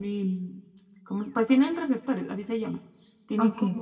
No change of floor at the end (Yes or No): Yes